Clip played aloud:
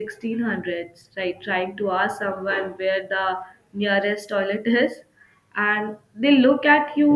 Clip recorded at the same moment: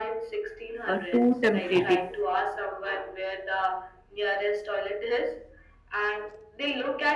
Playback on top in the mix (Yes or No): No